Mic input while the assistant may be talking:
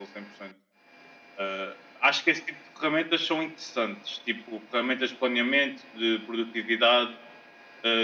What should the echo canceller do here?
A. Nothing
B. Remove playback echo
B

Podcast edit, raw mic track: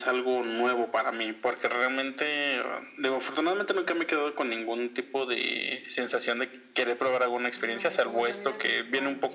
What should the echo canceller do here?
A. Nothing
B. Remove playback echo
B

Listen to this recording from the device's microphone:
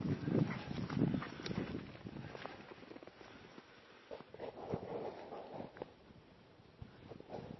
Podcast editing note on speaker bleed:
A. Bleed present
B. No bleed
B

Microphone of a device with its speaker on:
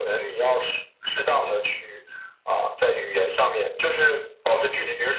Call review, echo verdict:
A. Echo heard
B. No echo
A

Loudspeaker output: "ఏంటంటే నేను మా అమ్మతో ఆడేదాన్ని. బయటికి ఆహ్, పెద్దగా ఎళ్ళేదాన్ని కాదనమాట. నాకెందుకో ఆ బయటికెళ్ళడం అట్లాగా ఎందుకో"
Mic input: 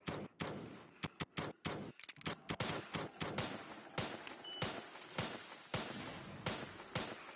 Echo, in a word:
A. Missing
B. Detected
A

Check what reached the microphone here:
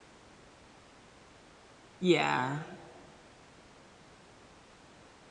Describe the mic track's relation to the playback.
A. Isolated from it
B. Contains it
A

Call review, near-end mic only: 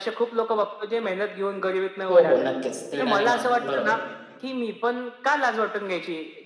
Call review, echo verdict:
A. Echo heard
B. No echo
A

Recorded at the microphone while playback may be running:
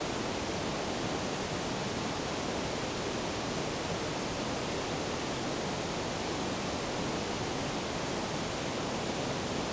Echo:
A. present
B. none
B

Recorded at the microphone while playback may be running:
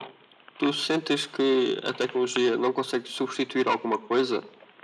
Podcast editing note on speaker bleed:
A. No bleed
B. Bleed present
B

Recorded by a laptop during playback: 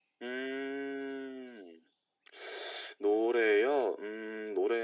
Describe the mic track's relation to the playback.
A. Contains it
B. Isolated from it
A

